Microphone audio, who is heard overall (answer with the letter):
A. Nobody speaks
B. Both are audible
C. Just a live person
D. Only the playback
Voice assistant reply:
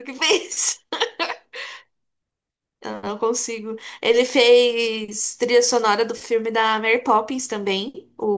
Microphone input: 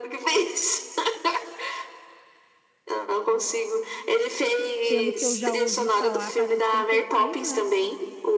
B